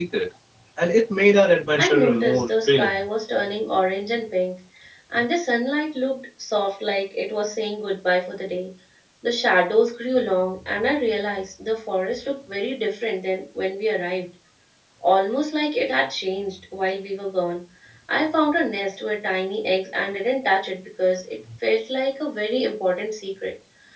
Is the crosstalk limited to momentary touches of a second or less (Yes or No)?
No